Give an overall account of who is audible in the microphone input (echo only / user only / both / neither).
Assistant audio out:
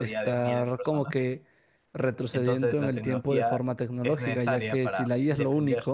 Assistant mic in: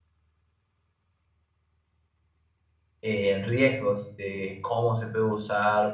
user only